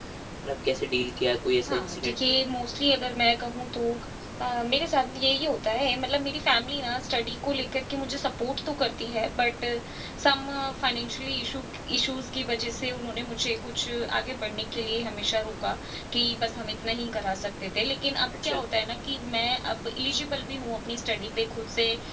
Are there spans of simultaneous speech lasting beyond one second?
No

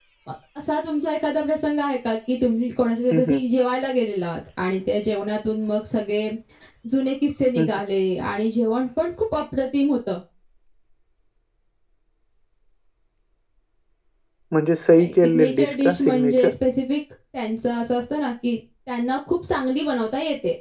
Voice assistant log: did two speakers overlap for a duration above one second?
Yes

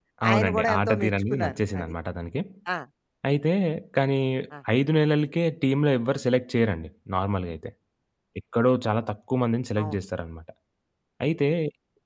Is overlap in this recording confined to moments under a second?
No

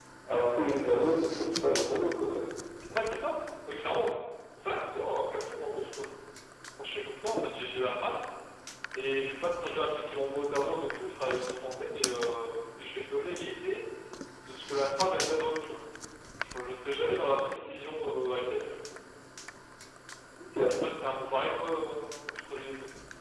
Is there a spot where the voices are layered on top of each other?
No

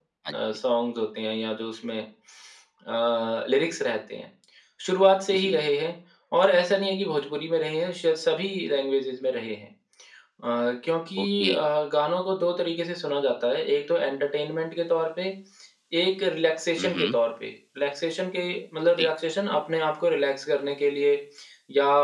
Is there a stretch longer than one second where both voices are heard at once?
No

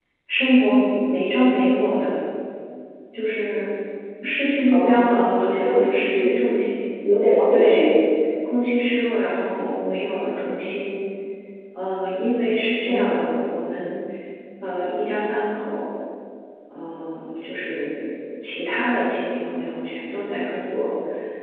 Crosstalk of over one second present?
Yes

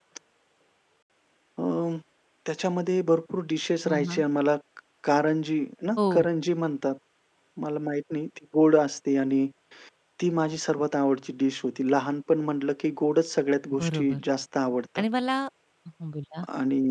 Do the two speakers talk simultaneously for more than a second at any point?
No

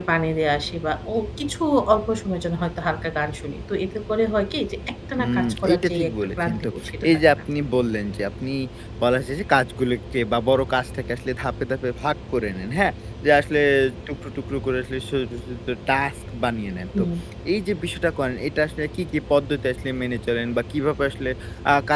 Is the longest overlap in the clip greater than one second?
Yes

